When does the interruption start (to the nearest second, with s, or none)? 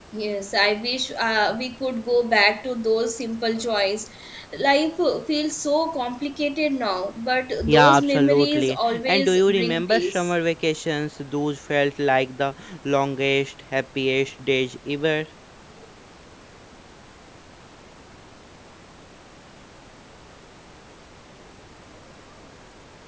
8 s